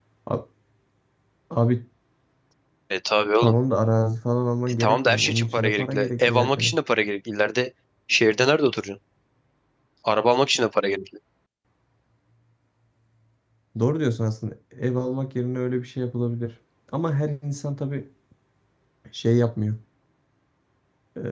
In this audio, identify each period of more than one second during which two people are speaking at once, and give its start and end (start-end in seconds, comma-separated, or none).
4.8-6.8